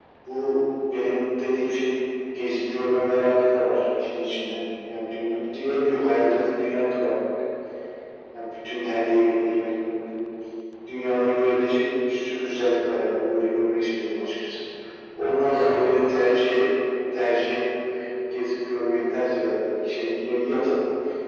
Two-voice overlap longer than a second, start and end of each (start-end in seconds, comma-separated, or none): 15.4-16.6